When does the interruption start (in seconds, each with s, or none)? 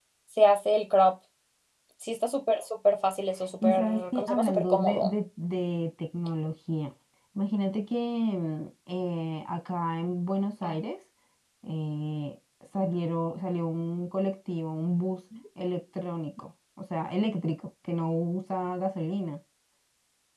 3.6 s